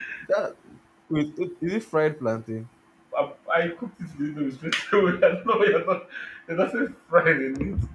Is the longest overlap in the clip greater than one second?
No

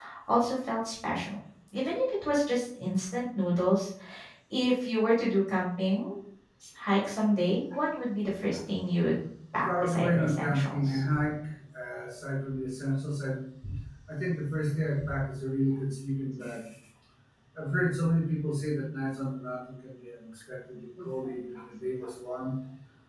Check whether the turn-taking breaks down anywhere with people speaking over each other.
Yes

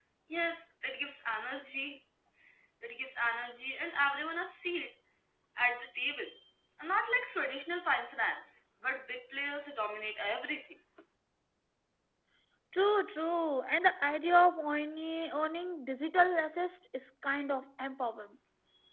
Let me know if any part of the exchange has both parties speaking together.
No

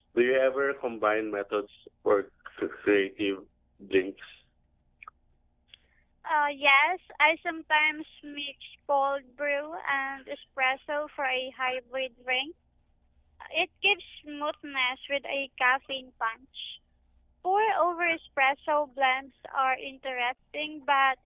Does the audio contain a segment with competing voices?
No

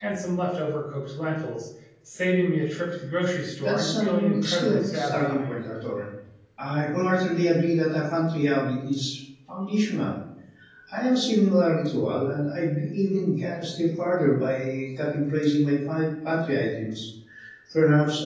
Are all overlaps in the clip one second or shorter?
No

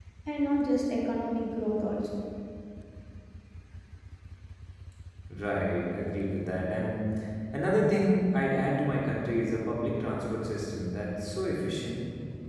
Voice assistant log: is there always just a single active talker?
Yes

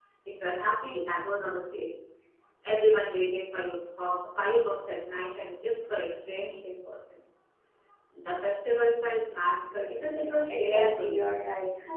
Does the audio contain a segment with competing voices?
Yes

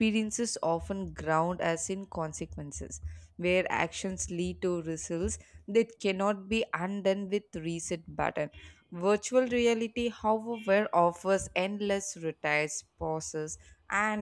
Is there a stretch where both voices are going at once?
No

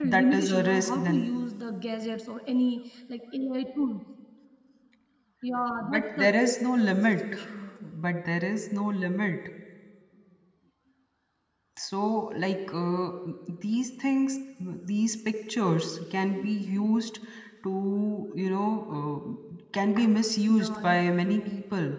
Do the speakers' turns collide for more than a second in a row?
Yes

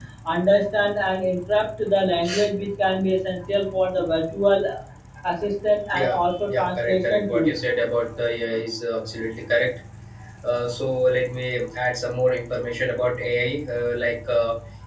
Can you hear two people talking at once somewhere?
Yes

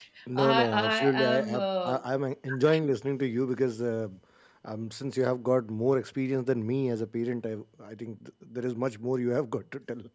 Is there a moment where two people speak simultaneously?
Yes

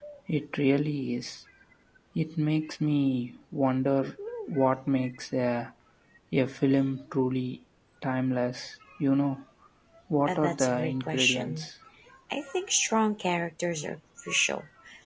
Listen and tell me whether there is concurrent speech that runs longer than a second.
Yes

